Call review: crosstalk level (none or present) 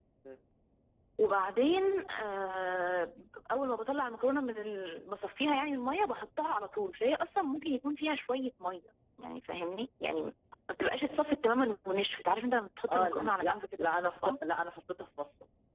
present